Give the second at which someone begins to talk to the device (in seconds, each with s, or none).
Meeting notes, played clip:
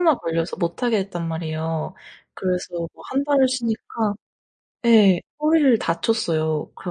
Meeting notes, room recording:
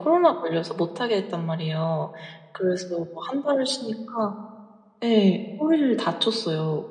none